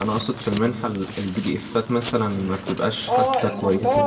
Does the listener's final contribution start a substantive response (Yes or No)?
Yes